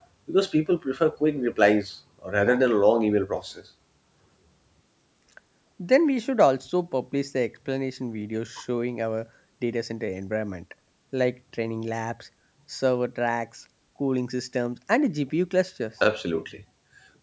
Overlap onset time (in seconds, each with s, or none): none